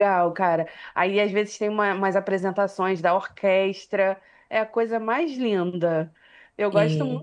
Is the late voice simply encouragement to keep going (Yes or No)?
Yes